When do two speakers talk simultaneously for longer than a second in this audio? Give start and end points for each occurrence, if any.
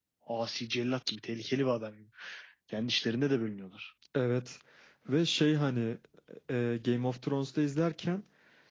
none

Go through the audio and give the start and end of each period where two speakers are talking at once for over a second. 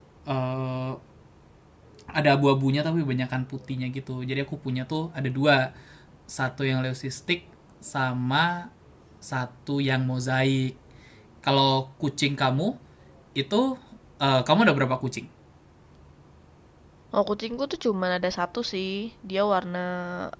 none

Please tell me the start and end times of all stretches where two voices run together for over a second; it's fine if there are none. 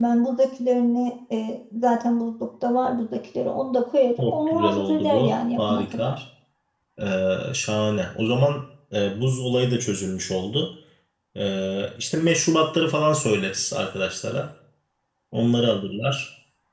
4.2-6.2

